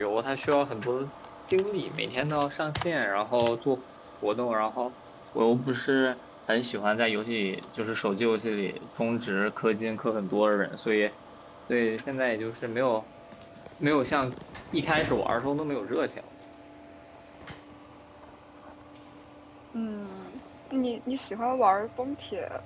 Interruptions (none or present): none